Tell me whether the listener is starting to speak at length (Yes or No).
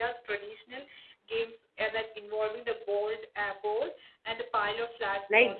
Yes